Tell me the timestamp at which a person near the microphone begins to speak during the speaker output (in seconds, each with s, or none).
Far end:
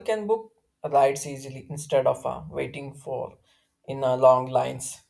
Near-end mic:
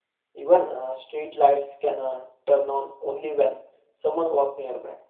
0.4 s